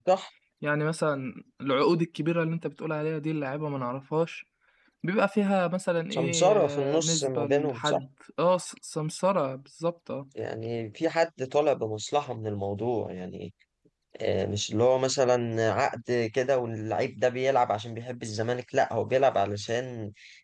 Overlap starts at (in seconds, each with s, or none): 6.1 s